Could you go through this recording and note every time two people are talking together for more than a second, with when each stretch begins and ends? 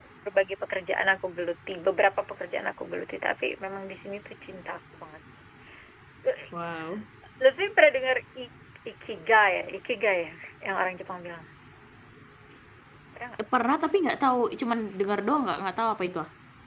none

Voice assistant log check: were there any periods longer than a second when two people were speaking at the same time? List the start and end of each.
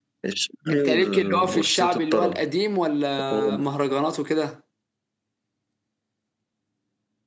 0.7-2.4

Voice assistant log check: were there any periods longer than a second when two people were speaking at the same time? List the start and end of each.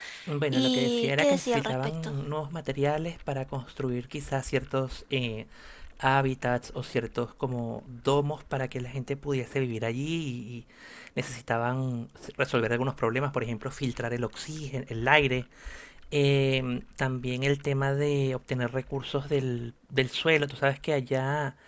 0.5-2.1

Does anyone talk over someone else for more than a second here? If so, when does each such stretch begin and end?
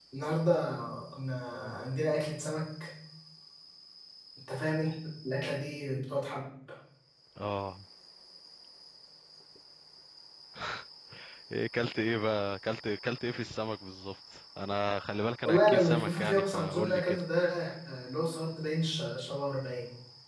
15.4-17.2

